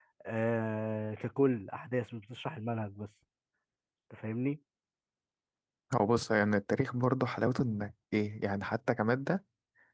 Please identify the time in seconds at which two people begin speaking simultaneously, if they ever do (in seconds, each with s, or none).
none